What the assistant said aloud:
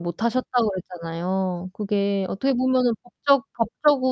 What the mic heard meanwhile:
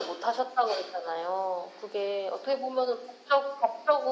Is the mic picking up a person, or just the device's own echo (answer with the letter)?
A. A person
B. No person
B